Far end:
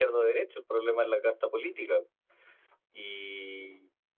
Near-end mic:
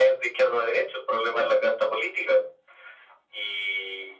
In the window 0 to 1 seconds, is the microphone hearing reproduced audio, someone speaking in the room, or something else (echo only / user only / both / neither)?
echo only